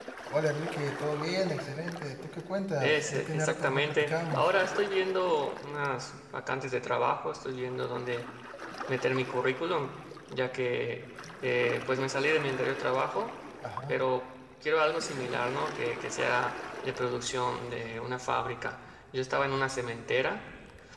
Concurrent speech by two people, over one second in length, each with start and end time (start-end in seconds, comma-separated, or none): 2.8-4.5